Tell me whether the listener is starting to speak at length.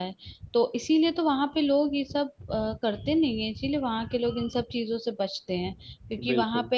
No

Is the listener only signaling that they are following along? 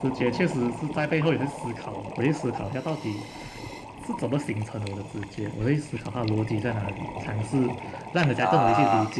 Yes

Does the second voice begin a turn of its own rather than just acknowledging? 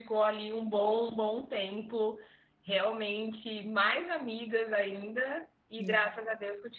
No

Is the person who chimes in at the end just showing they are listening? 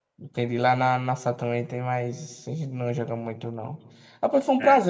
Yes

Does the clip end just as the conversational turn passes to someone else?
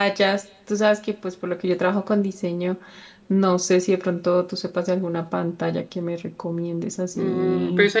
Yes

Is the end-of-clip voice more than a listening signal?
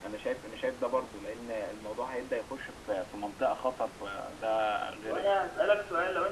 Yes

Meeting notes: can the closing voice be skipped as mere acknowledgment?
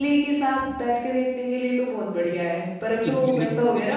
No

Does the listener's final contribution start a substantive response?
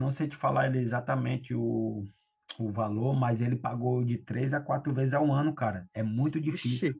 Yes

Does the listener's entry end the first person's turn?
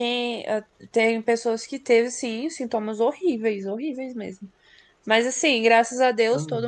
No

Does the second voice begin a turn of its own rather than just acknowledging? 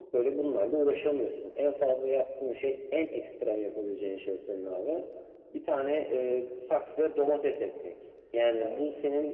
No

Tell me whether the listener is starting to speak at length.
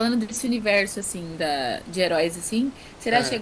No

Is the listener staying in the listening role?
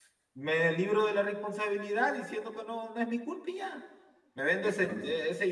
Yes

